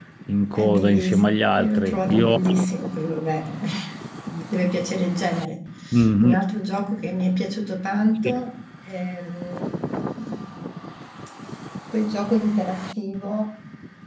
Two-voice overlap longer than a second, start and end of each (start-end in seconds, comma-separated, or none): 0.5-2.4